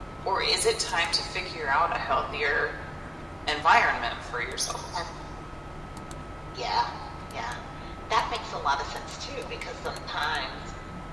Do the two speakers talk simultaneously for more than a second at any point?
No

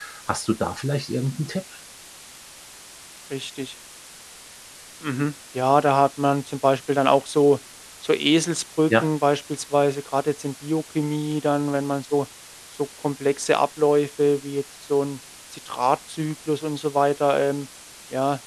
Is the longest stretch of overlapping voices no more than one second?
Yes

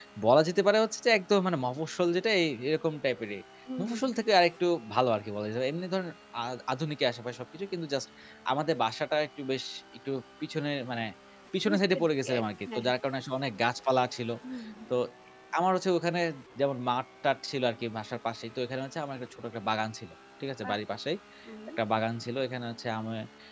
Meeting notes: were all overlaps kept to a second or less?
No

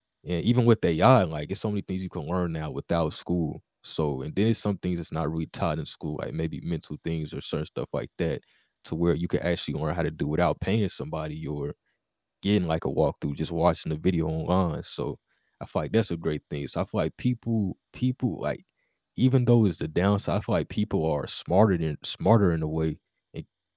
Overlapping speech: No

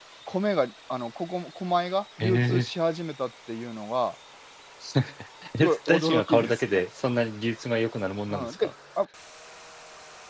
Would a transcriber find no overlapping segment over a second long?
No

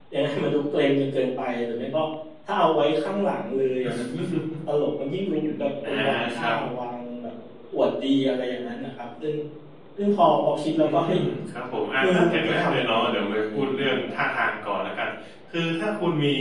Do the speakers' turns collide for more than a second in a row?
Yes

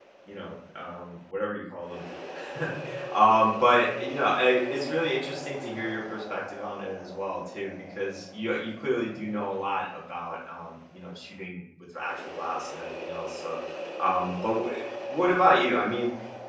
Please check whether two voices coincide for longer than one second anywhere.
No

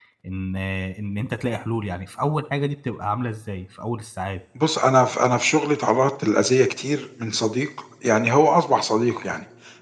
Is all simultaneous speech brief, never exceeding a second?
Yes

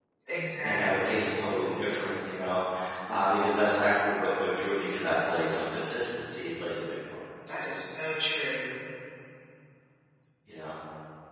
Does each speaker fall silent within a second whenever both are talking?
Yes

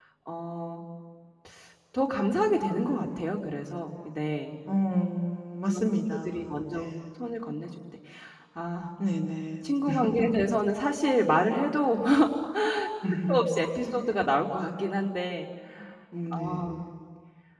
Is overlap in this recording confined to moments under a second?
No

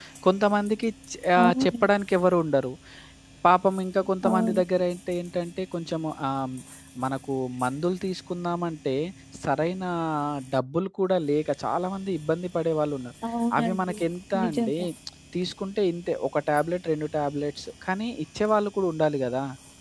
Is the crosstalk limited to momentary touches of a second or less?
Yes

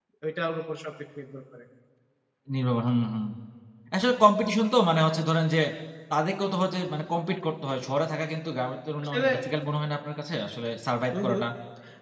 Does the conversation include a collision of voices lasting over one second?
No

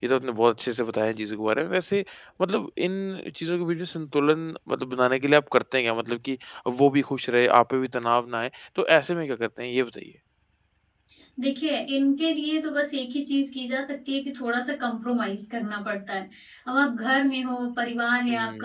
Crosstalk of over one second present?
No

